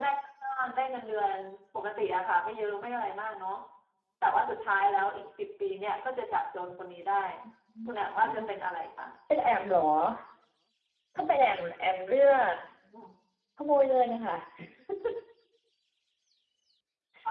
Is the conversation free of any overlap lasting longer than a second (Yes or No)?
Yes